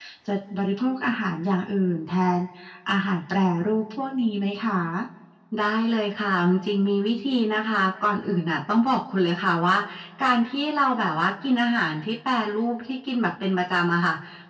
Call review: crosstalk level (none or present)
none